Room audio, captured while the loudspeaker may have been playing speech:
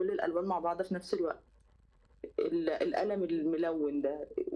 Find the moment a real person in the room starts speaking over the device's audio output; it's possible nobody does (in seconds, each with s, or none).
none